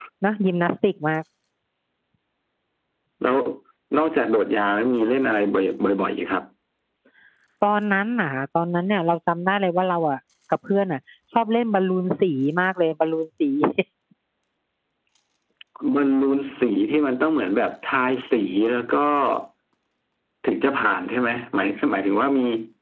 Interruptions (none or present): none